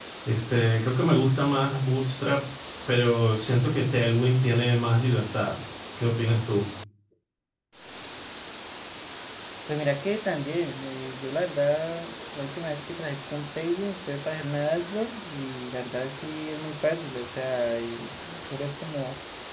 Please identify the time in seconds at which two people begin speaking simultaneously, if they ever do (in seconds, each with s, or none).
none